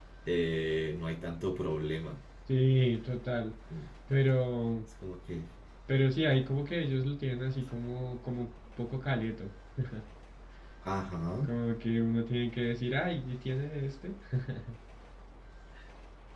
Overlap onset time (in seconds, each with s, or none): none